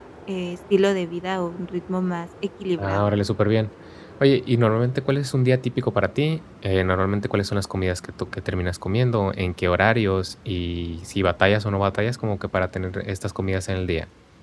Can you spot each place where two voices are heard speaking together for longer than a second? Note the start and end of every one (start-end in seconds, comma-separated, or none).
none